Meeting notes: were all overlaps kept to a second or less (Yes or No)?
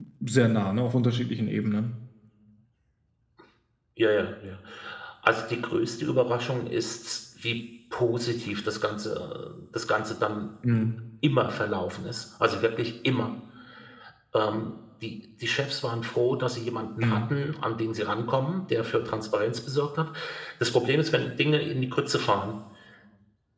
Yes